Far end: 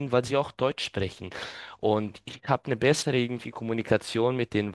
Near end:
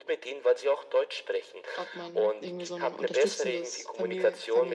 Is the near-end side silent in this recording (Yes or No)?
No